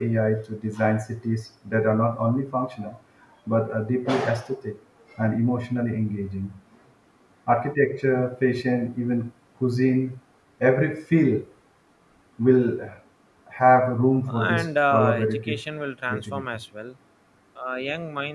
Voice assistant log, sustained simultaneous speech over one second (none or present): present